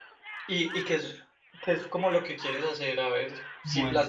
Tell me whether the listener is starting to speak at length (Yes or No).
No